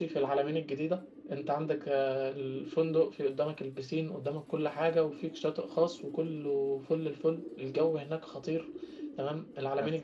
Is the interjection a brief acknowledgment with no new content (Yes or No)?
Yes